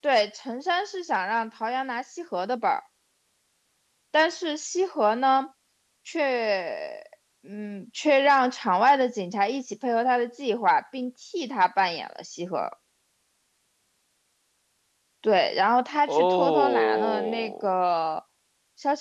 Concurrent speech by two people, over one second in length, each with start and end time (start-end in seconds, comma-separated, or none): 16.1-17.7